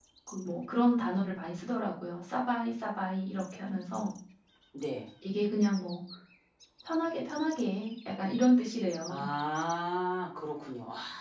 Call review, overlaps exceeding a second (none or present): none